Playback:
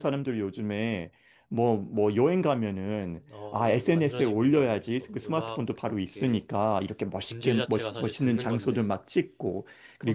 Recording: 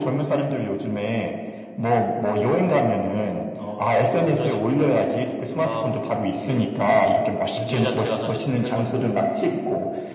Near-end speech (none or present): none